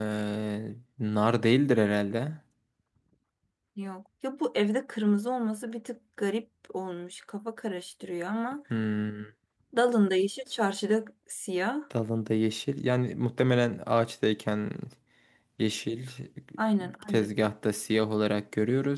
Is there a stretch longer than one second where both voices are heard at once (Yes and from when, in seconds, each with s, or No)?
No